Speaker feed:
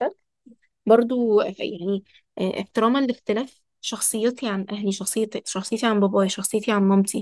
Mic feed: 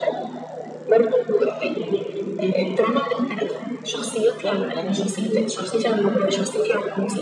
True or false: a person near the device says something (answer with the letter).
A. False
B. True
B